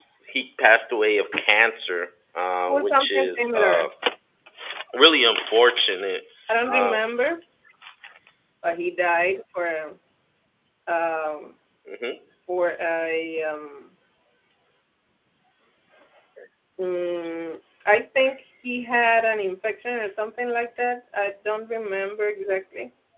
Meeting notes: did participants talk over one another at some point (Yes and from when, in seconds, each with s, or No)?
Yes, from 2.7 s